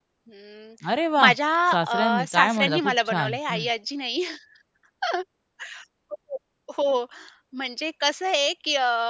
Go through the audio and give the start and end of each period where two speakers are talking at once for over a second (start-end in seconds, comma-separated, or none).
1.7-3.6